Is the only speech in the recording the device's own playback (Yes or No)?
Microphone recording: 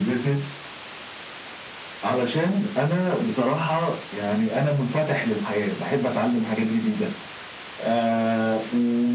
Yes